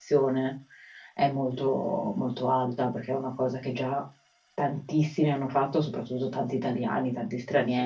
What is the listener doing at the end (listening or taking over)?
taking over